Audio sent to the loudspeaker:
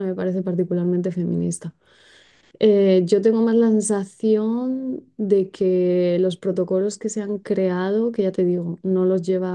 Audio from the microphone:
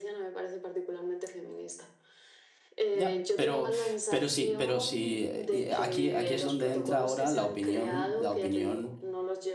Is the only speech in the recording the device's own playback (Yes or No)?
No